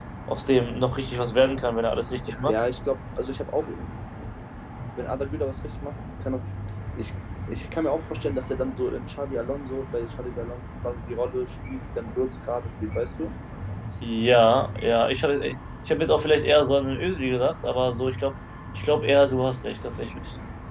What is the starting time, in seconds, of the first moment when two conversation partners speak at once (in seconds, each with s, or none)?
none